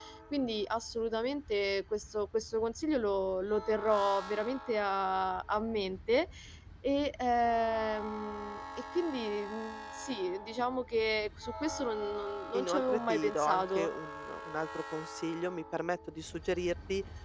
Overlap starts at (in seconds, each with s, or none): 12.5 s